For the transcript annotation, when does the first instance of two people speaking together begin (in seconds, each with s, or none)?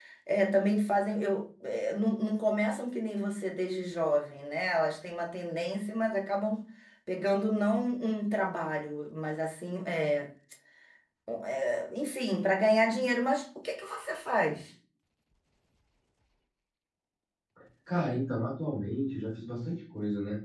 none